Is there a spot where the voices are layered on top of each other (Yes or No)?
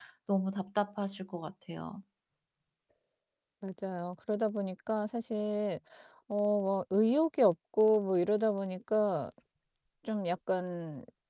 No